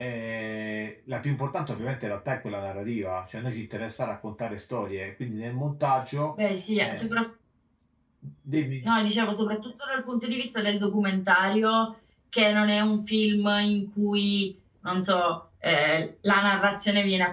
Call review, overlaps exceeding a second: none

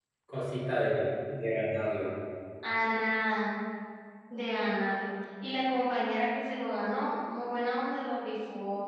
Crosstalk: none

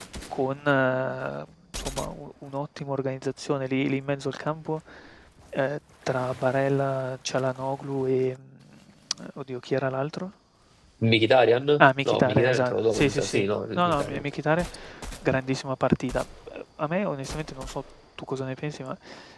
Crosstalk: present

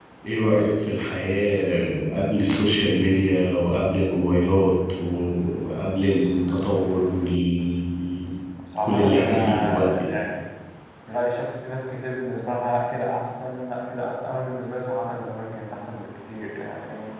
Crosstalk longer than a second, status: present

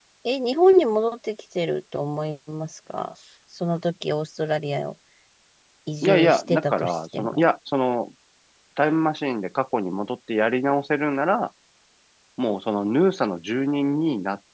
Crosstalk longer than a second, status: present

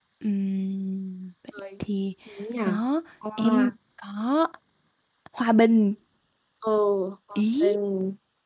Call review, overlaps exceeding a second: none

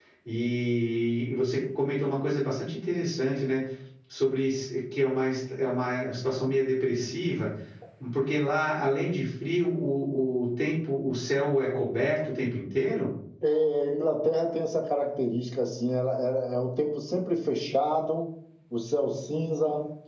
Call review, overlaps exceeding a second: none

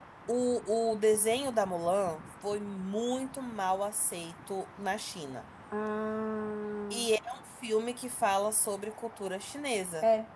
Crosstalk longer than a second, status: none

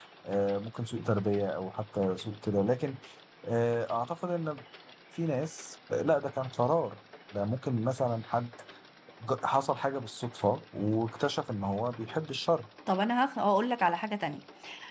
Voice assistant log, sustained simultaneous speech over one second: none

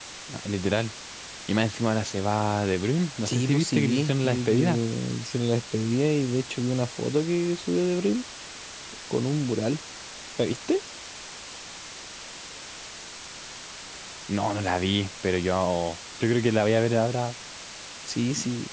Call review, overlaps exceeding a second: present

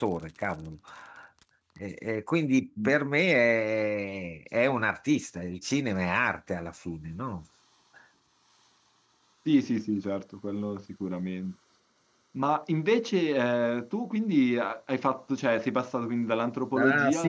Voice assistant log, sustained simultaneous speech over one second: none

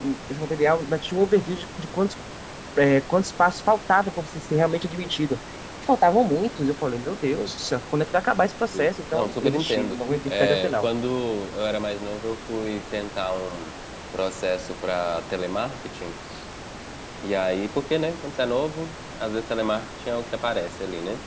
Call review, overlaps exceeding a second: present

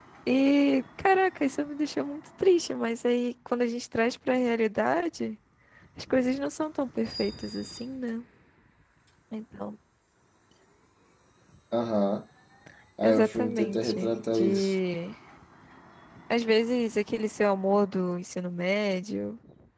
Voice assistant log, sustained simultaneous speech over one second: present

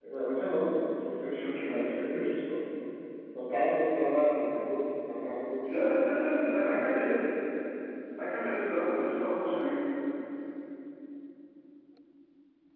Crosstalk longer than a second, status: present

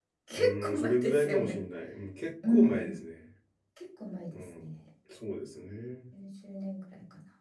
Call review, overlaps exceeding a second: present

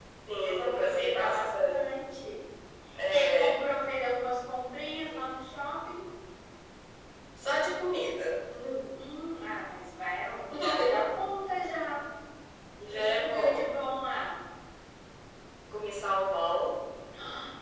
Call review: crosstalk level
present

